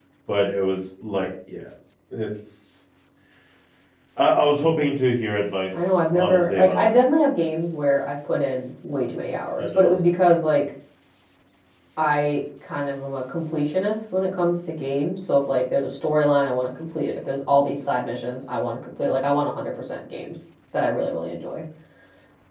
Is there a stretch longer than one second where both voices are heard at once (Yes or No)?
Yes